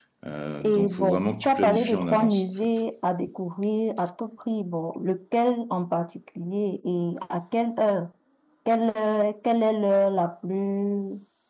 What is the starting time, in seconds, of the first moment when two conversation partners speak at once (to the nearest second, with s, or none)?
1 s